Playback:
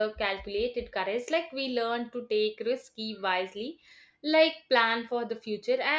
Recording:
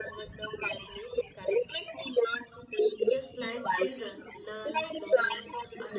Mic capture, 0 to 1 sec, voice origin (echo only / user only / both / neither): echo only